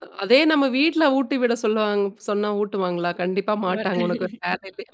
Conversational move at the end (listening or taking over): listening